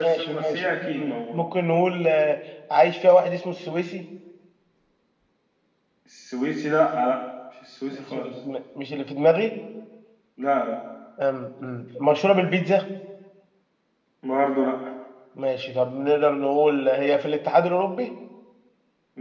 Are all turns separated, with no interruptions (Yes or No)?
No